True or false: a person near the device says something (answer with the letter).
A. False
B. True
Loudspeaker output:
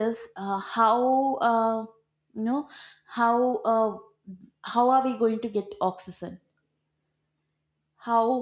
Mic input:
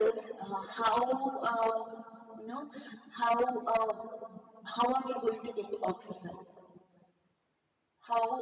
A